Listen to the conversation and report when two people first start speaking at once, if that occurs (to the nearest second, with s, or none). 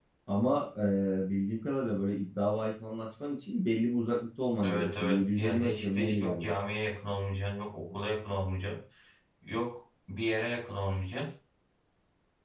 5 s